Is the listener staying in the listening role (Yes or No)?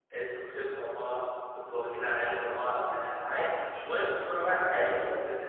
No